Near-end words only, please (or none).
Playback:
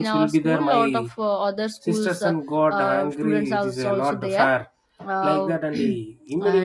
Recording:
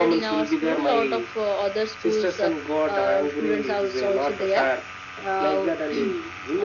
none